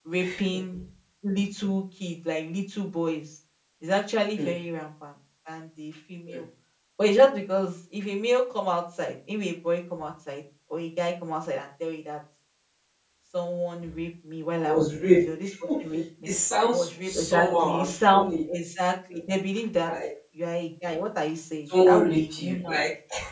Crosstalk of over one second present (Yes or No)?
Yes